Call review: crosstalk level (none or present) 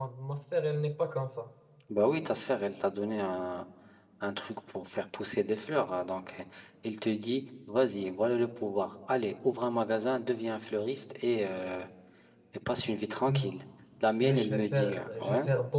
present